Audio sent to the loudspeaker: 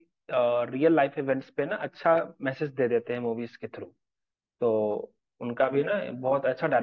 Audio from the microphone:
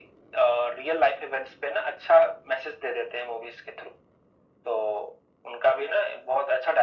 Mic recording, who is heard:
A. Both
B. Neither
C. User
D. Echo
D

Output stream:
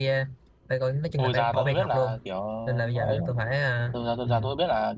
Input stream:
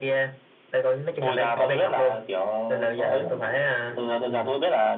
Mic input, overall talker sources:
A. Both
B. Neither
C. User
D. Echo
D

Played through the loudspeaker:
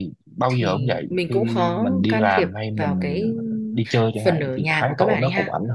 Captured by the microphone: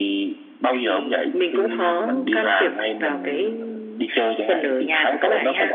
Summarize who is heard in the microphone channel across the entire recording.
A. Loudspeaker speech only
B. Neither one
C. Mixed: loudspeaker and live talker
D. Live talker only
A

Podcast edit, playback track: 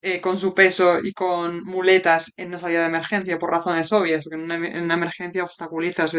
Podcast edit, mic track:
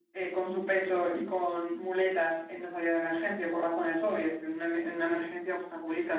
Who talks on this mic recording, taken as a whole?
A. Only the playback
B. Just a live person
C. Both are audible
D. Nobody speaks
A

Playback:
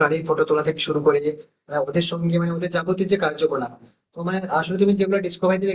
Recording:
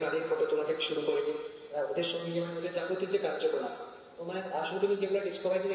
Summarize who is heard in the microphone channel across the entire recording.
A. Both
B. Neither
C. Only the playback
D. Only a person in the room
C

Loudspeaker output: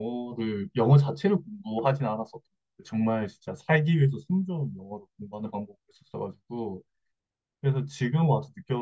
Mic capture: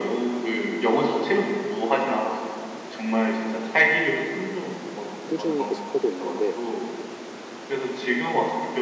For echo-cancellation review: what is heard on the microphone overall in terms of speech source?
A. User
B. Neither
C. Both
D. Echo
C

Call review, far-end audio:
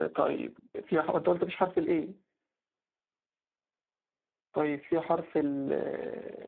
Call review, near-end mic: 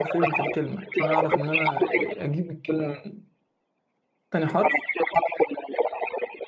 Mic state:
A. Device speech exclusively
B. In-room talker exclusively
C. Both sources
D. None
C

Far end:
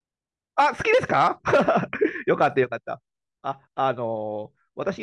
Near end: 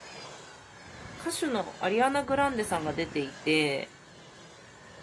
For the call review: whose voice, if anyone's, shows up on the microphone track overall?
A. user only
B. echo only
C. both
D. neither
A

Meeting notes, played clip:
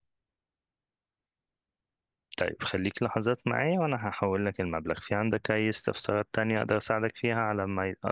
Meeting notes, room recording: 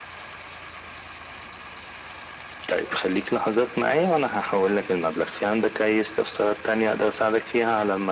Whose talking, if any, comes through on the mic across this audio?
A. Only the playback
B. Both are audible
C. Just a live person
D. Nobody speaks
A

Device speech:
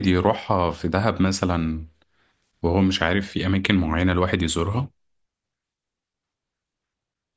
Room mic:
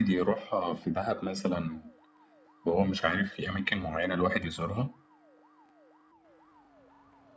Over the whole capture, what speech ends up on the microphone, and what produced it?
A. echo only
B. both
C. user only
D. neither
A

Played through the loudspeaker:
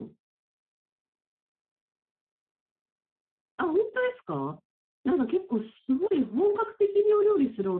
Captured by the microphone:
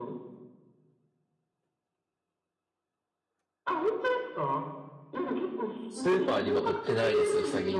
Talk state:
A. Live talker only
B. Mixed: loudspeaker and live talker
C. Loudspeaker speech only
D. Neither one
B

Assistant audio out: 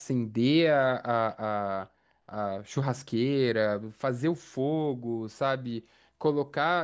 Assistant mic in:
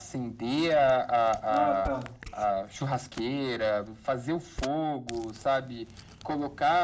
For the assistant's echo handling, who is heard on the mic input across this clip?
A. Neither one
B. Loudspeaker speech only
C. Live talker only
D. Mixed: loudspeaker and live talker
D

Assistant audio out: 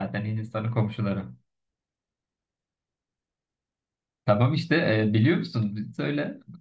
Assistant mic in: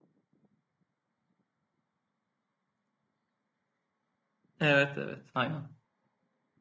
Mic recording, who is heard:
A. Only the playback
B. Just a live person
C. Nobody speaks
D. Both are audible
B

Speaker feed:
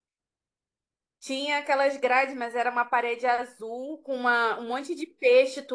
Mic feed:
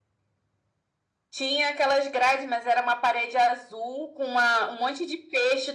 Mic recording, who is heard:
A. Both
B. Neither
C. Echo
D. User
C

